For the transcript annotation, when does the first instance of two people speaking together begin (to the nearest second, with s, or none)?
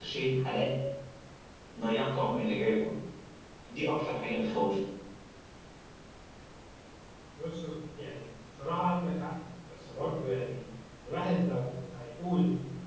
none